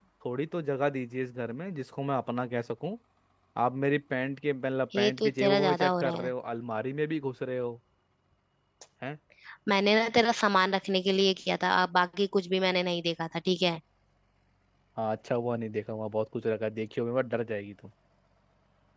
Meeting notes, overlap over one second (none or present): present